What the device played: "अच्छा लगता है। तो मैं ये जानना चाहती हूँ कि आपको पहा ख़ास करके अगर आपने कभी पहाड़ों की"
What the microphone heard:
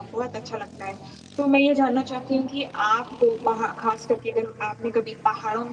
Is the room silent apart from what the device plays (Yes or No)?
Yes